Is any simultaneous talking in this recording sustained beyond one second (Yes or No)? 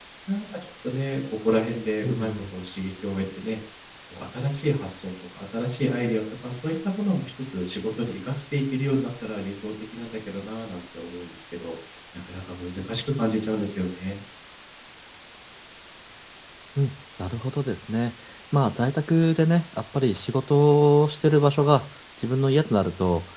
No